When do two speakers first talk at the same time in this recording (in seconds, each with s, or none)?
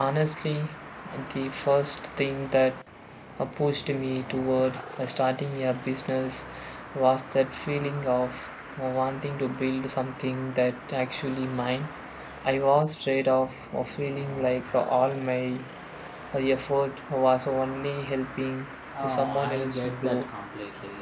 18.9 s